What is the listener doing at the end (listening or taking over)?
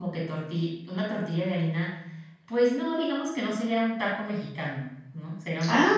listening